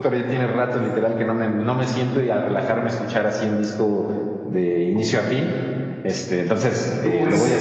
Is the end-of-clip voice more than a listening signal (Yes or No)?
Yes